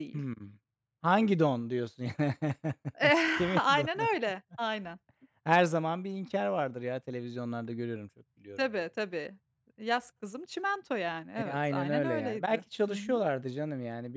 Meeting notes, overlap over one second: present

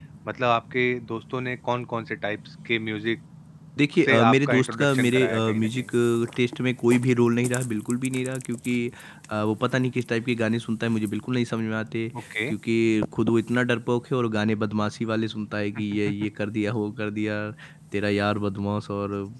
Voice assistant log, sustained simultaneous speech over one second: present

